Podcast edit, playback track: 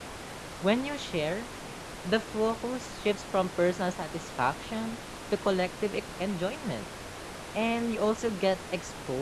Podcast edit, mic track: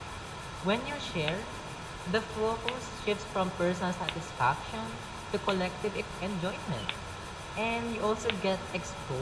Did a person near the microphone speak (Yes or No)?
No